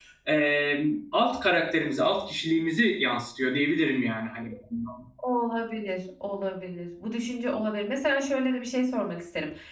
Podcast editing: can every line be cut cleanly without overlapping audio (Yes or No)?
Yes